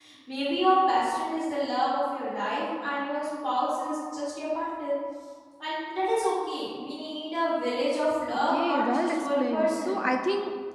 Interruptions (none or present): present